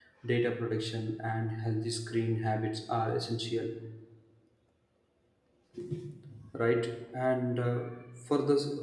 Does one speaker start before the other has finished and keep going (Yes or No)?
No